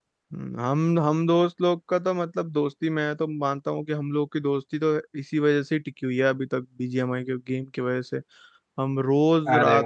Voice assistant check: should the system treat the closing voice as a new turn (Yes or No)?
No